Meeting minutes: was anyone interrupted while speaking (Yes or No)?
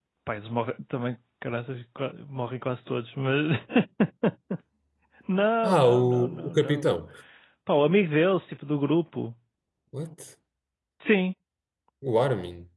Yes